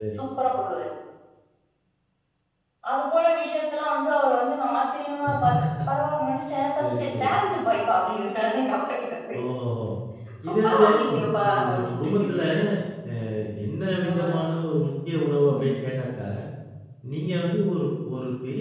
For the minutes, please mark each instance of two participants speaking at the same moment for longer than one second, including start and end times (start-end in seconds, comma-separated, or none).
10.6-12.1